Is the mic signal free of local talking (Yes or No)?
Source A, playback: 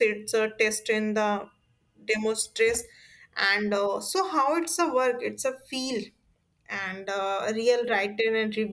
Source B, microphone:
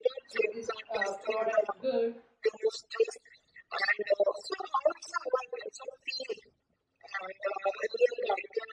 No